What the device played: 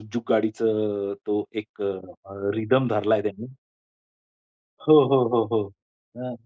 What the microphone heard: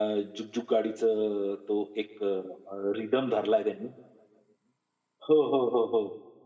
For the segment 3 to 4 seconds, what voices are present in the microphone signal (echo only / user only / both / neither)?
echo only